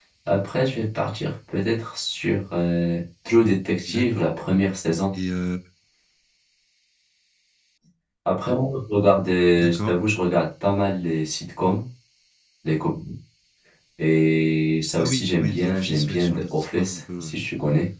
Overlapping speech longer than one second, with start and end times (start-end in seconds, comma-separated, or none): 15.0-17.3